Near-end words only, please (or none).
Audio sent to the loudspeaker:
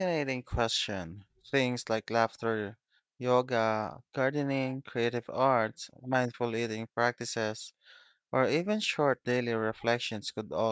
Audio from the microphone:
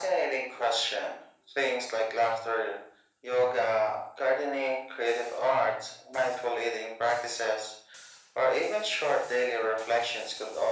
none